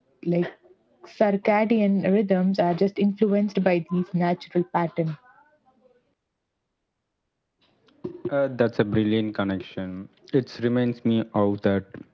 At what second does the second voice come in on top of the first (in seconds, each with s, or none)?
none